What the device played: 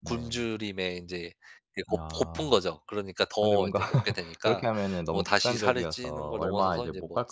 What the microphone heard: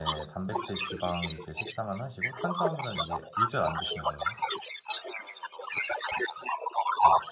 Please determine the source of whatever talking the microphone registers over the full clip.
both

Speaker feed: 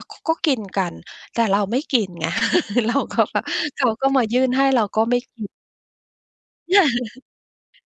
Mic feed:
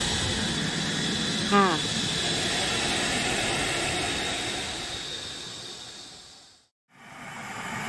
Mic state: user only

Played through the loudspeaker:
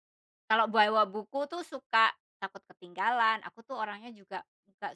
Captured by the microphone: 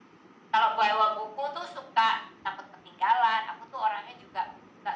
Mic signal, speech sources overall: echo only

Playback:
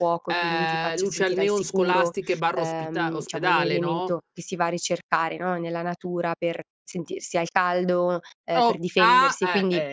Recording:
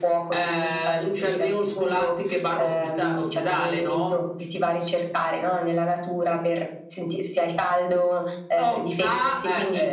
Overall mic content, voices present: echo only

